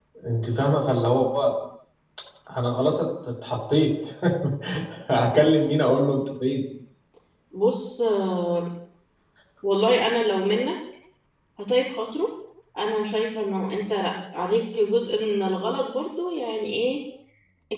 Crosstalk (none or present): none